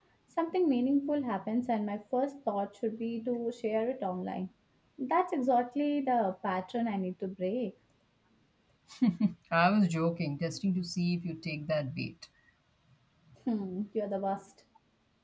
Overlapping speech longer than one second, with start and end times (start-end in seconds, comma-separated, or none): none